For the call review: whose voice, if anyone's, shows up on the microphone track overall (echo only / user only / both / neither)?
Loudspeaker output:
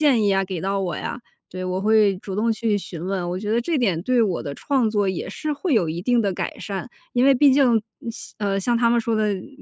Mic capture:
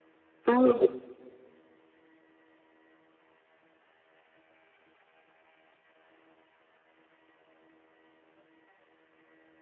user only